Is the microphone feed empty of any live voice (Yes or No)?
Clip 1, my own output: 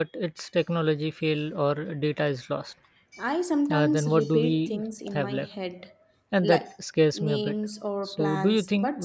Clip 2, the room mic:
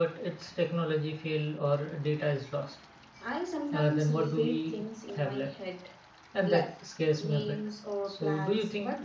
Yes